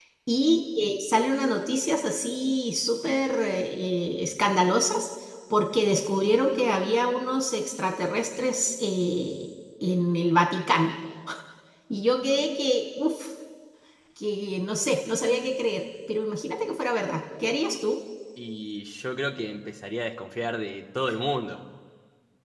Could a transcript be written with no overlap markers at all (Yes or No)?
Yes